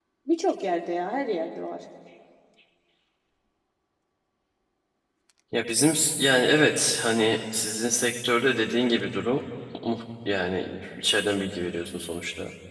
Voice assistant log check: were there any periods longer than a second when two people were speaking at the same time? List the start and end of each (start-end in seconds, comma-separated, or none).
none